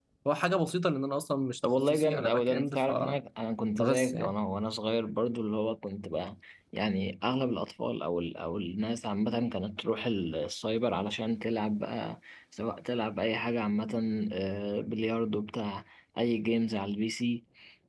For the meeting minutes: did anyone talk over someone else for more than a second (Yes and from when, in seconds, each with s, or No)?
Yes, from 1.6 s